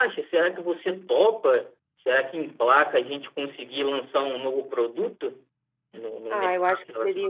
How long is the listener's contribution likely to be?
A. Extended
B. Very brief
A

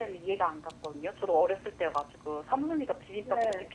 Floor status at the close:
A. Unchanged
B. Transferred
A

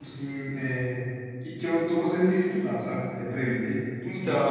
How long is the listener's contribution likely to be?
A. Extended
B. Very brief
A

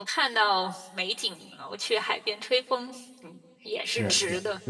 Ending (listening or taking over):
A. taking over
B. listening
A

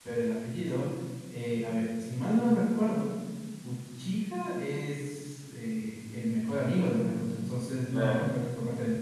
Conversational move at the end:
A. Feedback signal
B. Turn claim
A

